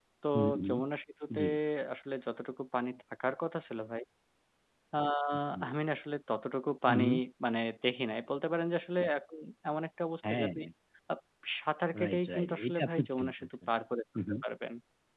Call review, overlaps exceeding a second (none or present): present